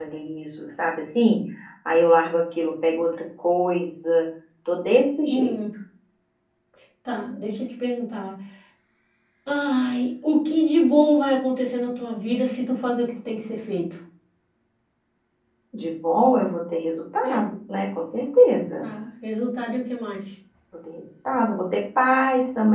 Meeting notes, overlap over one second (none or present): none